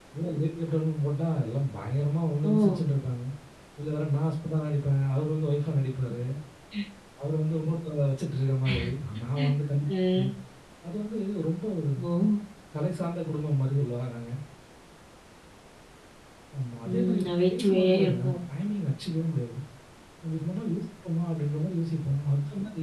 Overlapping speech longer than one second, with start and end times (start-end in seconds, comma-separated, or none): 16.9-18.4